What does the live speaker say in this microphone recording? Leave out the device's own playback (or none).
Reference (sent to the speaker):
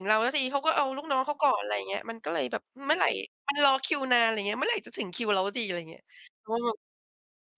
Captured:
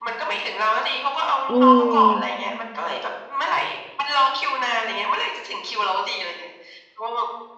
อืม